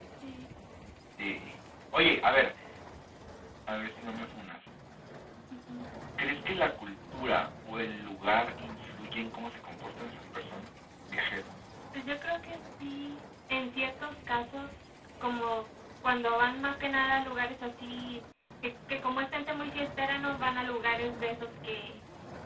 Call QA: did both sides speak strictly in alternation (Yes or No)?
Yes